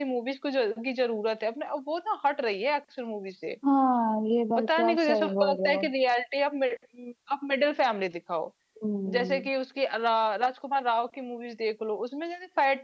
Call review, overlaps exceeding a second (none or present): present